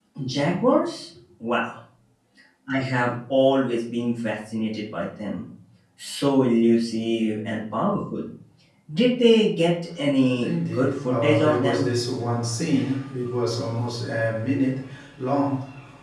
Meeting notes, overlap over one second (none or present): present